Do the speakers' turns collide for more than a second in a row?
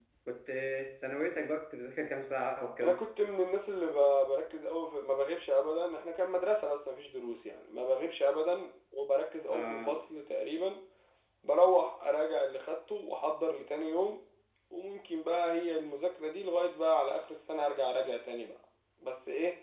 No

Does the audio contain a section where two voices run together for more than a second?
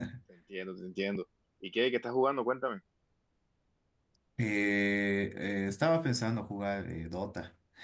No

